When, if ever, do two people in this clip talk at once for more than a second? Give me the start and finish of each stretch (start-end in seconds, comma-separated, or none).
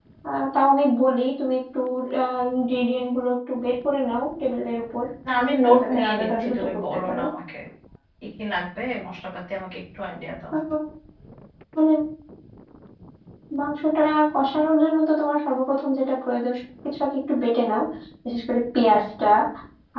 5.6-7.2